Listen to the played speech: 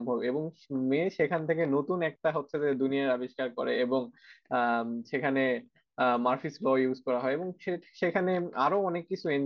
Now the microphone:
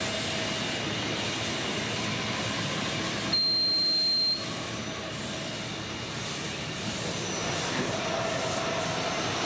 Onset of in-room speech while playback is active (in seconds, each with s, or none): none